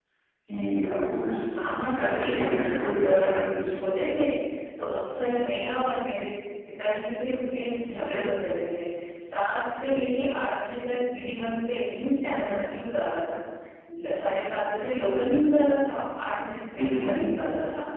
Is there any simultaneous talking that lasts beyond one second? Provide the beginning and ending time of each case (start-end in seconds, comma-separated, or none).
1.9-3.6